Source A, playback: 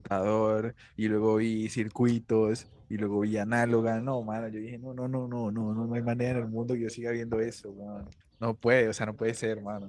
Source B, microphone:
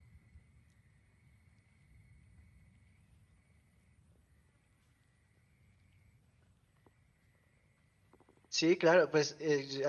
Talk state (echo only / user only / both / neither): user only